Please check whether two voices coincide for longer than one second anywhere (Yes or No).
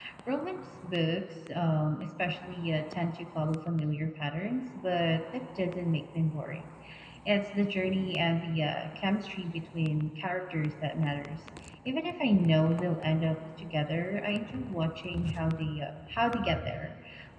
No